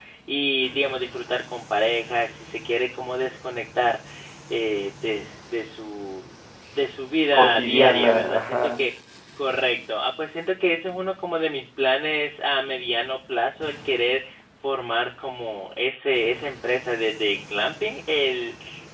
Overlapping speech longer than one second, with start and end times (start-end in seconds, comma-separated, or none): 7.3-8.9